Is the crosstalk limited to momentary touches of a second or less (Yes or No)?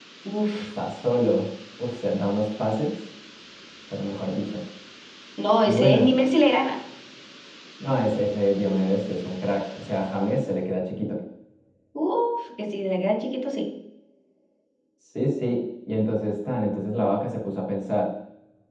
Yes